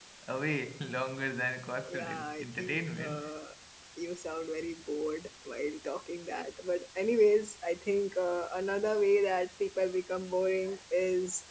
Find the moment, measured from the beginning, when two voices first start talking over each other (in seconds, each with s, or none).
1.9 s